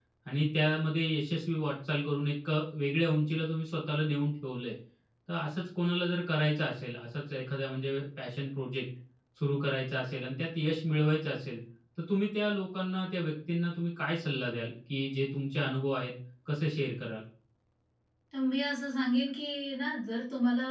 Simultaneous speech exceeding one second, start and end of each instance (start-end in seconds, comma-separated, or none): none